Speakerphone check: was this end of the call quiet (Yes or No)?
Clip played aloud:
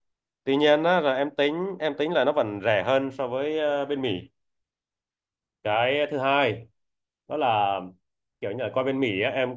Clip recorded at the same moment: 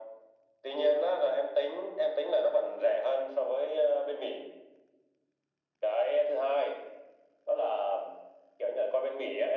Yes